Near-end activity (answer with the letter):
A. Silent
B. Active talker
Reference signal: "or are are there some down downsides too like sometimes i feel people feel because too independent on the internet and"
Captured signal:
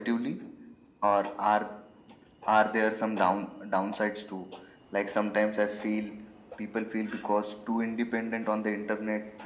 A